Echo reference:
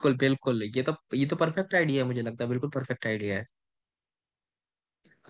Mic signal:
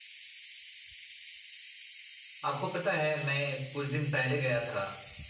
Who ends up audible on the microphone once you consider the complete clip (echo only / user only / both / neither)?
user only